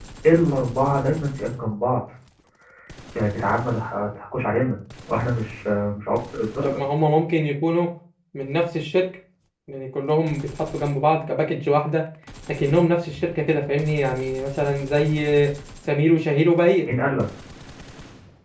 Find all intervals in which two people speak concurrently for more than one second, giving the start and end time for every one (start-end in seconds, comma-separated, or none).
none